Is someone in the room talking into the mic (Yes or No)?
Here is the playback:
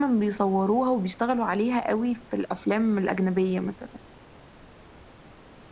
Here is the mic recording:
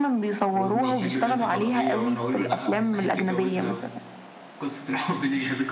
Yes